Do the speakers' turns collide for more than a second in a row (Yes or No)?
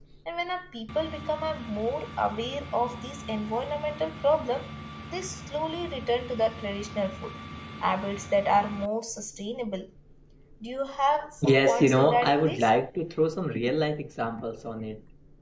Yes